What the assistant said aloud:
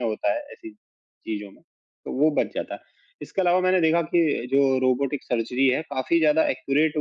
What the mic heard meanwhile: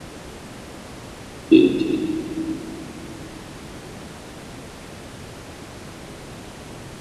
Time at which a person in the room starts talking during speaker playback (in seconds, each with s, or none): 1.5 s